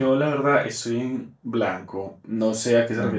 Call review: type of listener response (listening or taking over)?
listening